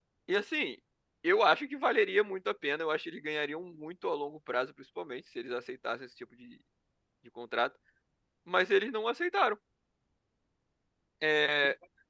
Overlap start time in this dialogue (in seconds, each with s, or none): none